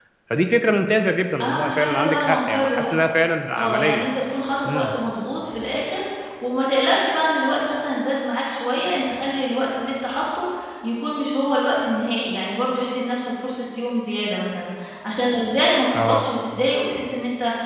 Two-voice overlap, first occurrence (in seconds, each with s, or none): 1.4 s